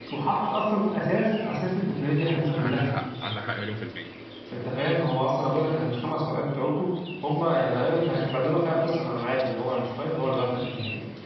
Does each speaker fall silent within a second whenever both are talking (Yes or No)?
Yes